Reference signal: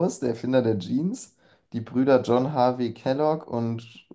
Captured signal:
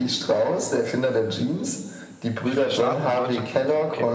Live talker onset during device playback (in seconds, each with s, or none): 2.4 s